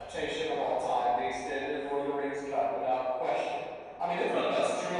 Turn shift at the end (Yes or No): No